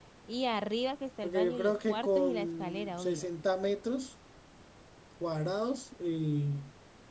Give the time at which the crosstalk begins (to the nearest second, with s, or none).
1 s